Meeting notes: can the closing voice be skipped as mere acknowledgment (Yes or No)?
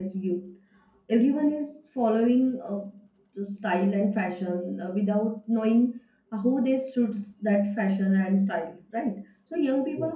Yes